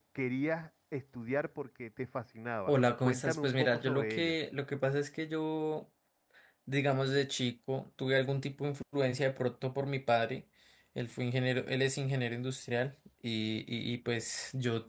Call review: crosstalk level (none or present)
present